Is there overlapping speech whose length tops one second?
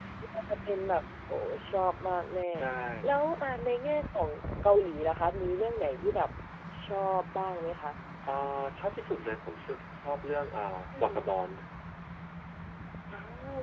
No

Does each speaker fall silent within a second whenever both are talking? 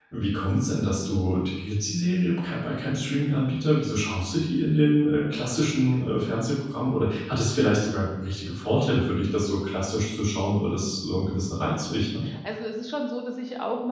Yes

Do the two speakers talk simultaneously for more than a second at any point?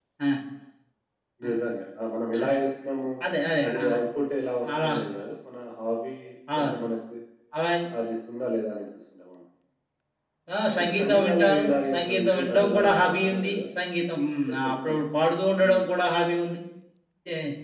Yes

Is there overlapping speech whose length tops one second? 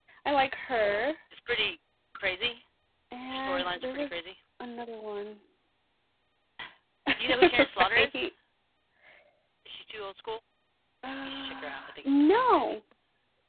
Yes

